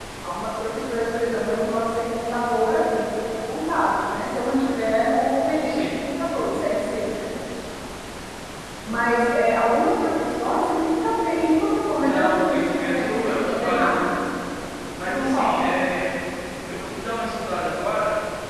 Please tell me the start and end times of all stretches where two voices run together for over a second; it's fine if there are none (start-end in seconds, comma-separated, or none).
12.0-14.0